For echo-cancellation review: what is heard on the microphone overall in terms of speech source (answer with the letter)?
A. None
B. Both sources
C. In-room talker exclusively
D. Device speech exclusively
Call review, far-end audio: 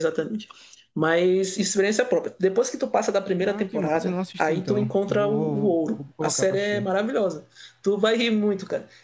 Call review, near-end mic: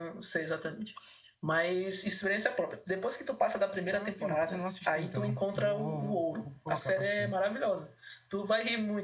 D